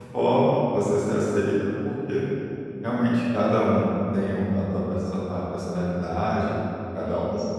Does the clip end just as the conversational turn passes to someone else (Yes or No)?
No